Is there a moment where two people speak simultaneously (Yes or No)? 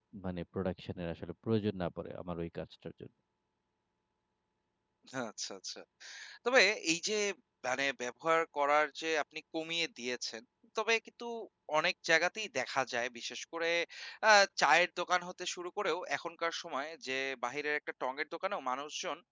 No